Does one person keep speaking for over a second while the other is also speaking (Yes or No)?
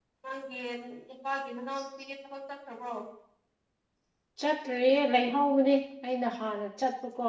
No